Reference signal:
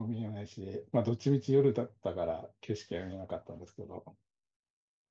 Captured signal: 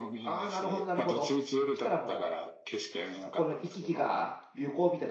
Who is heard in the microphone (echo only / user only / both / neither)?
both